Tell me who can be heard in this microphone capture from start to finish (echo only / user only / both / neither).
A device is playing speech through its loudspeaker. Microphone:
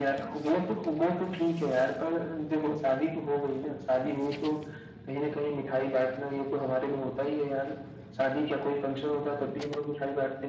echo only